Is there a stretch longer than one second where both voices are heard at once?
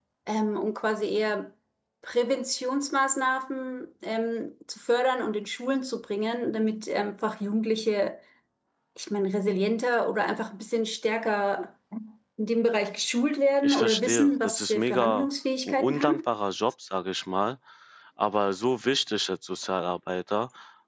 Yes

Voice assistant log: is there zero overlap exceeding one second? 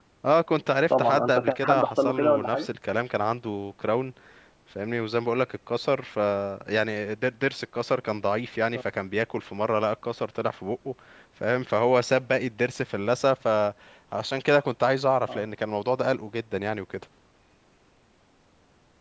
No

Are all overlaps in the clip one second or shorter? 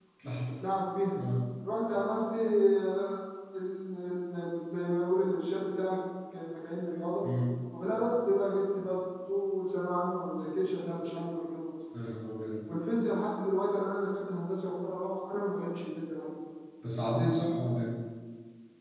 Yes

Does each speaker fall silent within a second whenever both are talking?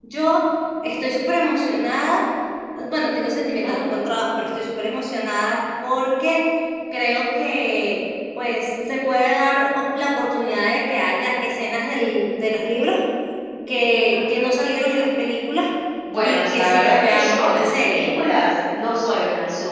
No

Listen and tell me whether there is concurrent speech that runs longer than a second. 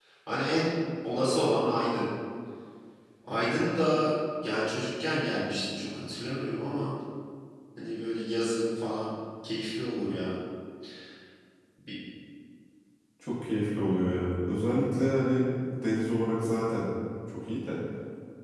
No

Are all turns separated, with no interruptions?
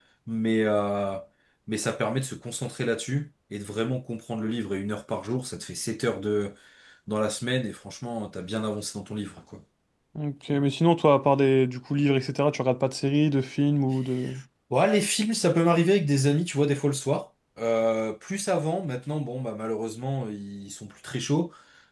Yes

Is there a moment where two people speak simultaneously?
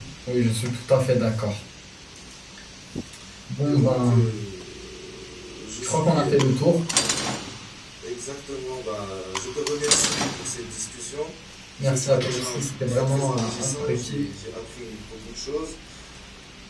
Yes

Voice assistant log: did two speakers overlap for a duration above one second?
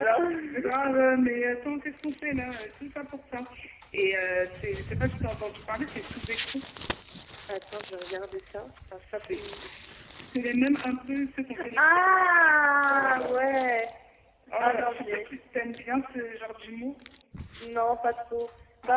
Yes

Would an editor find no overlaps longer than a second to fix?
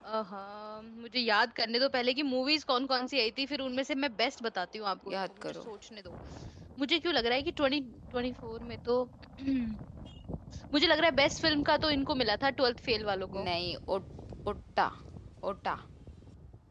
Yes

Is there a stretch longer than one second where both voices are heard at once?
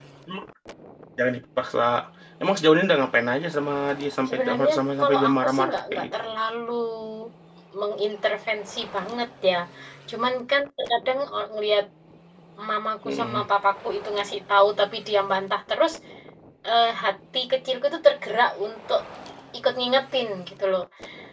Yes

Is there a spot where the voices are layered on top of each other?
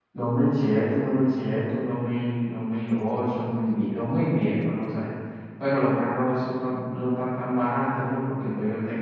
No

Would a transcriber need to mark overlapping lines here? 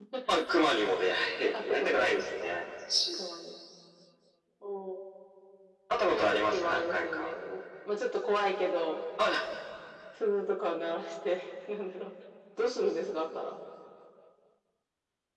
Yes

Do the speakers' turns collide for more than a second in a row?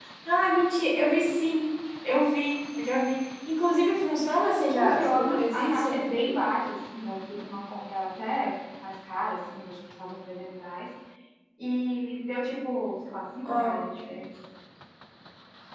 Yes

